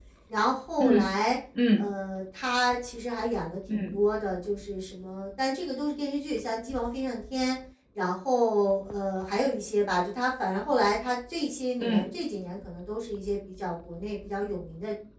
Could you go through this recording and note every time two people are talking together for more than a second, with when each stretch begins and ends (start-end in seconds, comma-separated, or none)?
none